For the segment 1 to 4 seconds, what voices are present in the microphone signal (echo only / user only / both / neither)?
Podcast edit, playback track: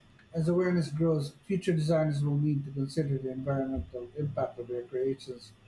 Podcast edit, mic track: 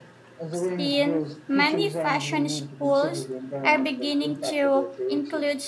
both